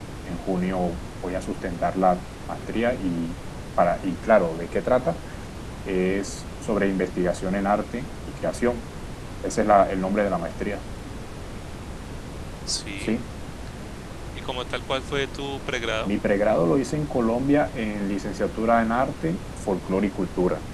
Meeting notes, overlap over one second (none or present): none